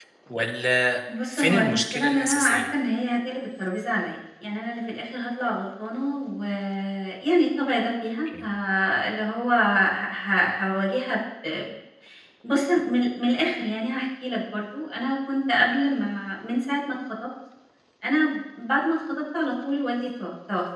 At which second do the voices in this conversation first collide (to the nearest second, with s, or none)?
1 s